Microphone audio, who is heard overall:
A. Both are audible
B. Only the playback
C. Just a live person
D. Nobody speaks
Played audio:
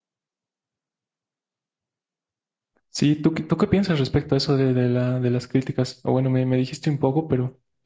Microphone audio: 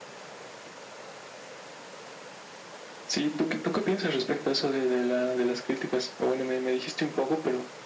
B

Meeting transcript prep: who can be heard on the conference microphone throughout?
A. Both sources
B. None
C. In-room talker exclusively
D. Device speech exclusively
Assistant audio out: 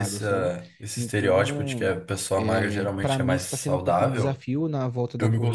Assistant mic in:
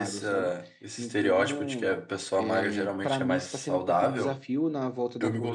D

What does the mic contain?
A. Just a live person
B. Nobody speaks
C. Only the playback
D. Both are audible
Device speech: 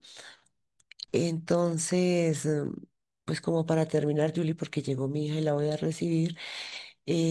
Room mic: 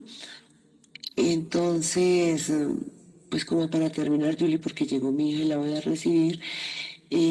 C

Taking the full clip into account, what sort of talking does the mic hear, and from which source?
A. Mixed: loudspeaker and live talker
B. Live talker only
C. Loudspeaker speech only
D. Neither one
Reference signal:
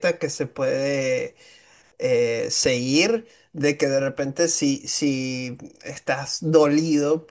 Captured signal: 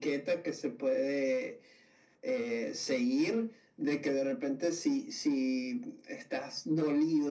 C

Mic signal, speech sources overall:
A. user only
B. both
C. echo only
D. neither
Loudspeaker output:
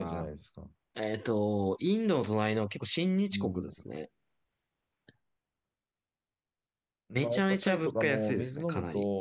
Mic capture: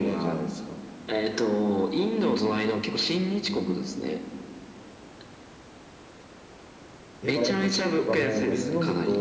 B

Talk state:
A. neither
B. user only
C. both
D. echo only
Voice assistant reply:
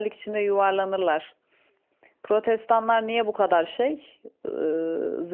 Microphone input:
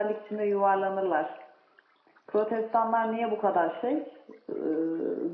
D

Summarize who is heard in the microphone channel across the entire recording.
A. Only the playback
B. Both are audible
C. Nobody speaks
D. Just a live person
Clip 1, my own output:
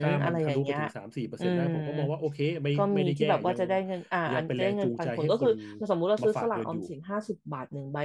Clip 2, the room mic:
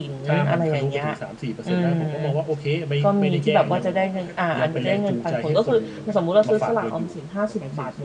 B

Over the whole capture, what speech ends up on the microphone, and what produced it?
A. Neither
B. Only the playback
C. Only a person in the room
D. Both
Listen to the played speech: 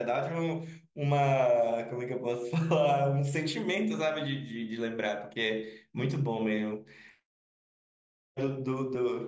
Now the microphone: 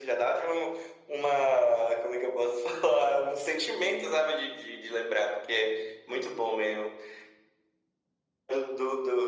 B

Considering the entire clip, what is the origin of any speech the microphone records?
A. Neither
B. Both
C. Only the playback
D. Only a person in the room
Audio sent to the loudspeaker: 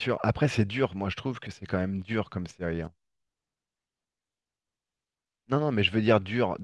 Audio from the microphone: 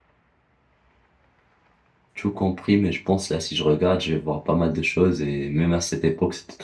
D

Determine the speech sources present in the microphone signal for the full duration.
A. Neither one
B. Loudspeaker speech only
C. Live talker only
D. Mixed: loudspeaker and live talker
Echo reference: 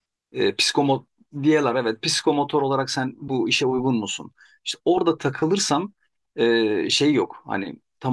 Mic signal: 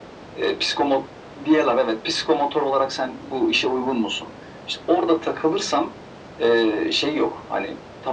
B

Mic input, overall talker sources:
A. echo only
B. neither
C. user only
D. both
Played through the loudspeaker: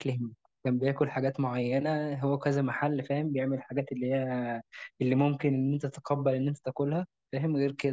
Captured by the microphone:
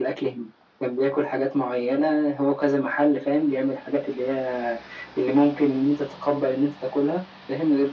A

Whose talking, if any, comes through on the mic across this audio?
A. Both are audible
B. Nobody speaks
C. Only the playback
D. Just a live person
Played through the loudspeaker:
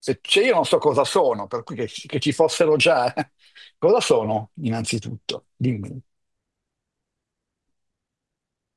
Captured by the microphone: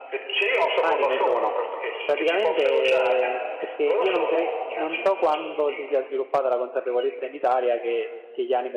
A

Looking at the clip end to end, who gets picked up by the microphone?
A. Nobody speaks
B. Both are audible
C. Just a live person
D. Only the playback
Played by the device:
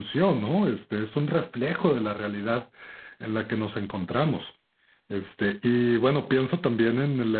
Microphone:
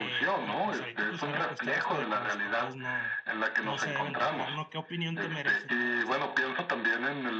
B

